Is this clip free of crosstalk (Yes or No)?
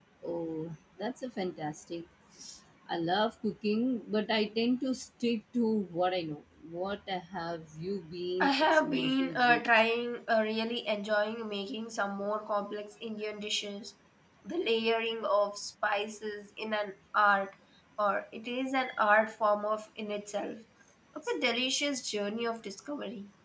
No